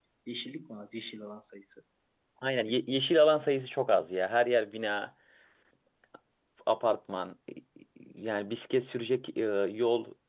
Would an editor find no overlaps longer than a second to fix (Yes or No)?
Yes